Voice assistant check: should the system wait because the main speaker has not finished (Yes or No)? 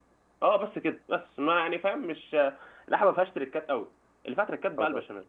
Yes